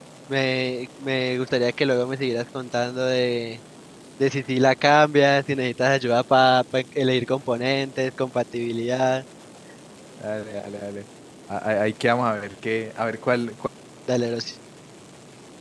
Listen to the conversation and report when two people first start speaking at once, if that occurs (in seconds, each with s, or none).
none